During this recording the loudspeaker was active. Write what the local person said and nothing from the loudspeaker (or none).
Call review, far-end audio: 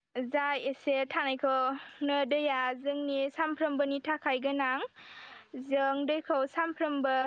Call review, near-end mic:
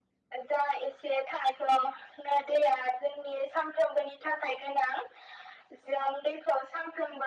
none